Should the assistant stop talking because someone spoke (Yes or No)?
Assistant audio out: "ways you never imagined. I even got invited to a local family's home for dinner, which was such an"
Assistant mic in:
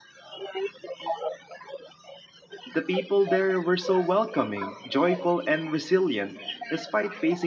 Yes